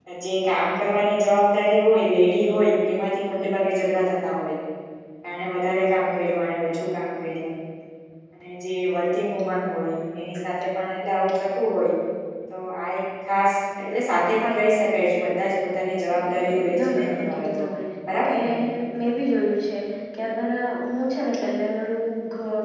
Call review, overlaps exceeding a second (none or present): present